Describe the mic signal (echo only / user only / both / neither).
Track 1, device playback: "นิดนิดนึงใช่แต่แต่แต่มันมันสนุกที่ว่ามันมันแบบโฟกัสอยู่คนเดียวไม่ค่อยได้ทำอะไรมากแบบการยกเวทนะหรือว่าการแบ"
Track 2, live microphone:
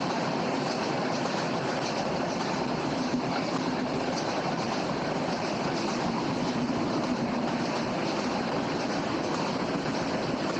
neither